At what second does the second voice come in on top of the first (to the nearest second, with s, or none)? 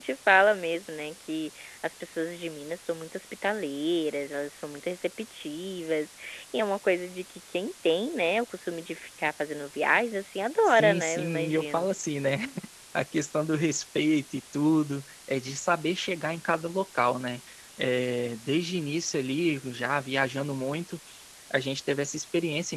11 s